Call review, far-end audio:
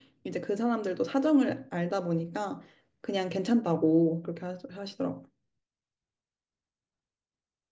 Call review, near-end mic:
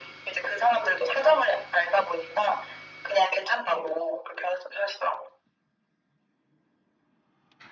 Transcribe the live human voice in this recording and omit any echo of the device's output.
none

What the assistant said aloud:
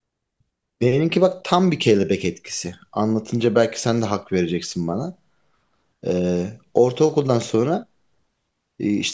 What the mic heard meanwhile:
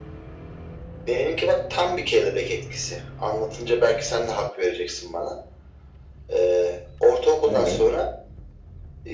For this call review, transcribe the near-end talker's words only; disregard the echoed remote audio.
Evet.

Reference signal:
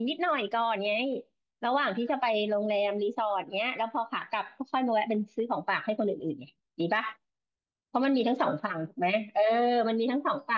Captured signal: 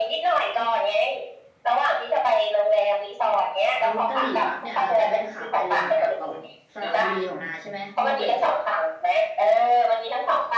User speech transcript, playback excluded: แล้วกะหรี่ปั๊บเนี่ยเราจะแวะขาไปหรือขากลับก่อนสระบุรีของนาใช่ไหมมวกเหล็ก

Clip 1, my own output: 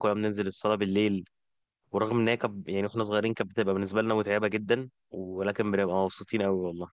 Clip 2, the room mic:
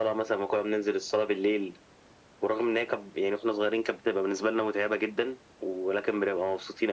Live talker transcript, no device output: none

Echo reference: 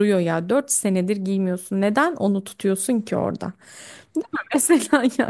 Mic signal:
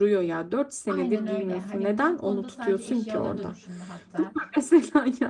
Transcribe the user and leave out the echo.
Aynen öyle. Hani bu konuda sadece eşyaları da düşünme hatta.

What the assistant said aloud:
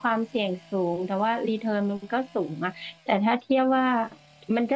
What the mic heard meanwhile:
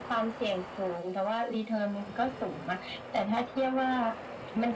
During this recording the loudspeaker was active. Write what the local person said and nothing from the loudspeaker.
none

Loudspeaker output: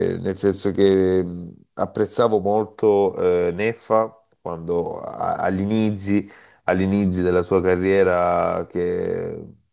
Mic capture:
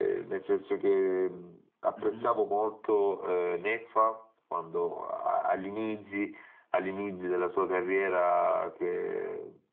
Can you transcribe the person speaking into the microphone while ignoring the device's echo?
Mhm.

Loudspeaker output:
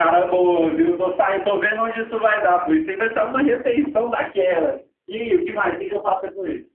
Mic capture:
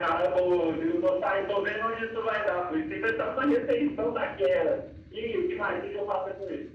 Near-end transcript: none

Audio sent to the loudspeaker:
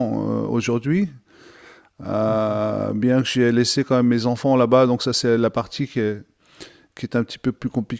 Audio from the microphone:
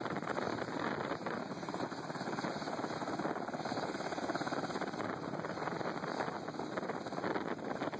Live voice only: none

